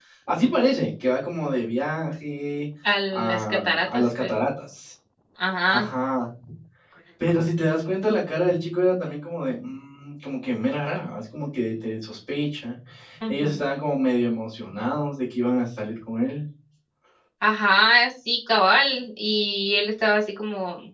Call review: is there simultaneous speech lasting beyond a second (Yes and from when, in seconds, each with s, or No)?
Yes, from 3.1 s